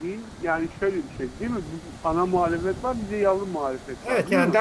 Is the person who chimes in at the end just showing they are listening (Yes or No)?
No